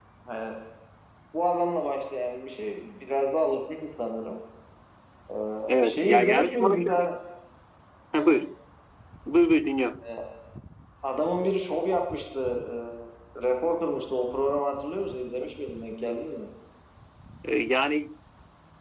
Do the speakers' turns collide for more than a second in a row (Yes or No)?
Yes